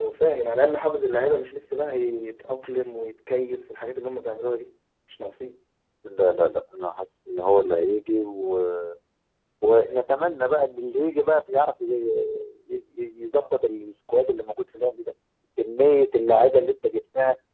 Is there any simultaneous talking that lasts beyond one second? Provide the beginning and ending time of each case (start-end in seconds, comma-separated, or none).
none